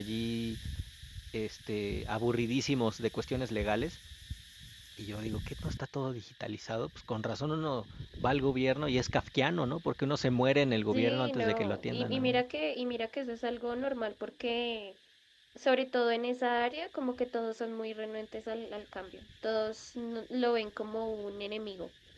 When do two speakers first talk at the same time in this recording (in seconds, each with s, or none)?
10.9 s